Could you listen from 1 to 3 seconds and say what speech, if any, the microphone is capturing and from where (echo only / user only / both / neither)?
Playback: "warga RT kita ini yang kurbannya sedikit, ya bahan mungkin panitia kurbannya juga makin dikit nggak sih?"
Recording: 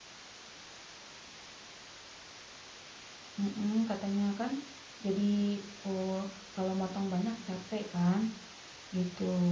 neither